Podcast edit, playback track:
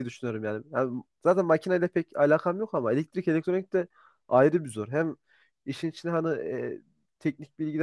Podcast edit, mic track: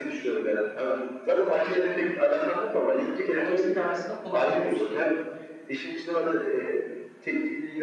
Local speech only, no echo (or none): E, dolayısıyla aslında kullanışlı bir şey.